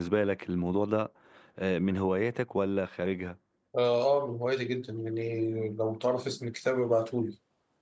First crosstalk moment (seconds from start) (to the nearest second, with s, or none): none